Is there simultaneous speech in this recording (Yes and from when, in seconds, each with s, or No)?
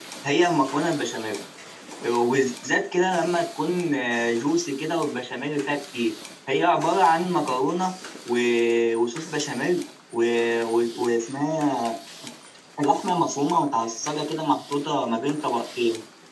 No